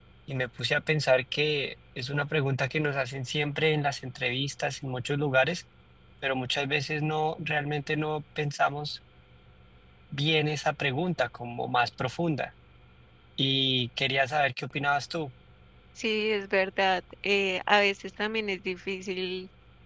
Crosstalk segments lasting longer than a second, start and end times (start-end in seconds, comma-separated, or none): none